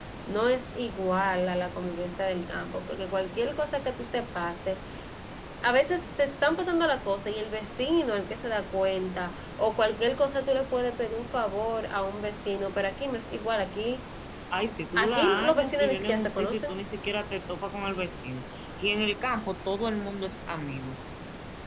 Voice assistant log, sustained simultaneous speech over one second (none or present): present